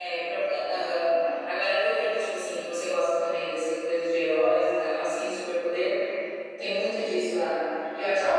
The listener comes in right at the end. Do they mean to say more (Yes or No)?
No